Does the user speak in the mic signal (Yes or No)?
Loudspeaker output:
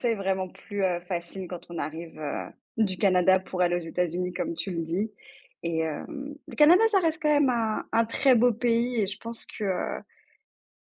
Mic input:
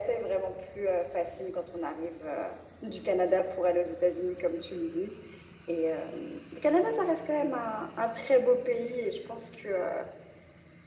No